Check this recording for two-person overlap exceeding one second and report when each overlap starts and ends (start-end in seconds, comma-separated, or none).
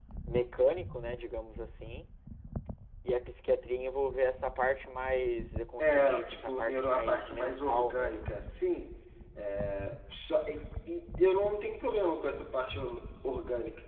5.8-8.5